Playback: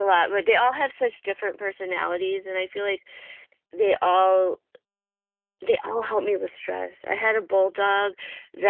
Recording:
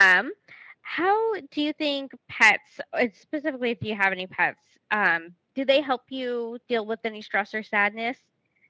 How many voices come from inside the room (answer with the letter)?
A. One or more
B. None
A